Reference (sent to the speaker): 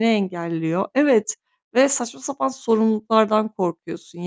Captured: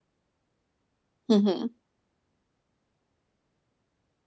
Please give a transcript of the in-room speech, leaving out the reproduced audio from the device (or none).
Hı hı.